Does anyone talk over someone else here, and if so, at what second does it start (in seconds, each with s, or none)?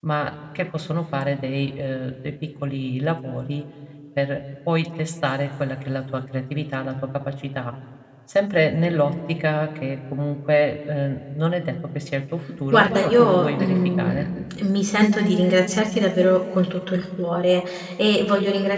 12.7 s